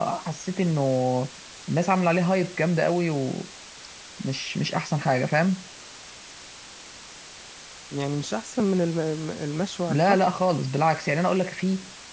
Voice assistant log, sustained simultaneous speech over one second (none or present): none